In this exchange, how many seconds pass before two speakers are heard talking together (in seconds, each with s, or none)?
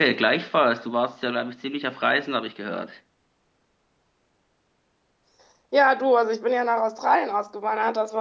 none